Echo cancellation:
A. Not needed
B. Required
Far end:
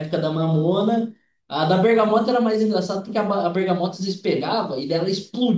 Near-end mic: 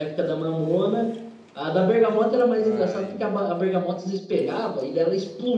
B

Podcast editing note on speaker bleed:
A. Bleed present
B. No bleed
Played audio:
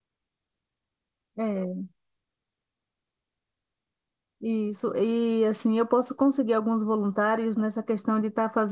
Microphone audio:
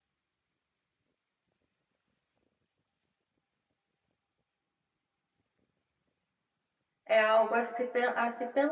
B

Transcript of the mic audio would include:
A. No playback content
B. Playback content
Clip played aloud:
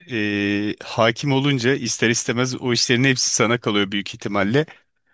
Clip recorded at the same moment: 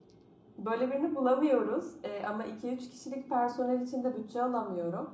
A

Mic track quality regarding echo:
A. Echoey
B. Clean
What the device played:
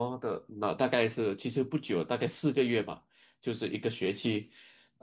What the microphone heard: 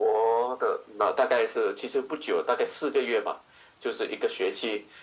A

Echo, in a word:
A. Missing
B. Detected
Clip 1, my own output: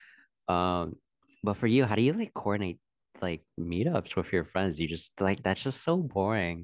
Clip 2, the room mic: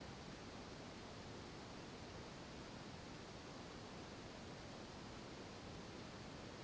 A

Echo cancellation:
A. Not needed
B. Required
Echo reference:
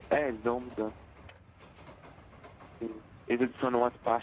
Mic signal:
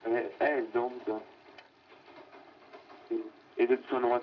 B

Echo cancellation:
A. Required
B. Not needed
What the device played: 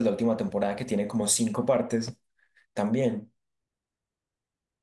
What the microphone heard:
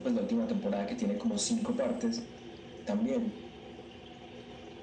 A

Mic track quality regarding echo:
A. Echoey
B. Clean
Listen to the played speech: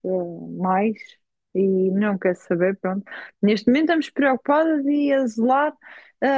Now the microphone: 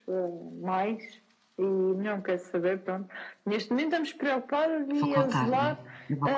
A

